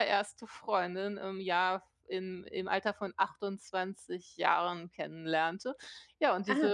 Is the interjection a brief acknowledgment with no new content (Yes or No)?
Yes